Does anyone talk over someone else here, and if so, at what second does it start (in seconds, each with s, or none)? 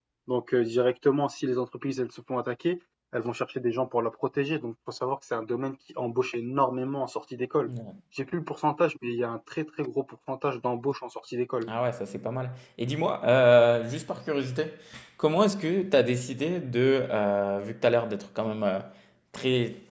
none